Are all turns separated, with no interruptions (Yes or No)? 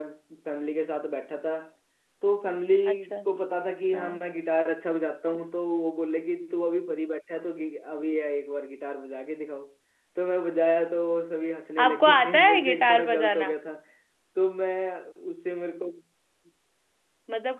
No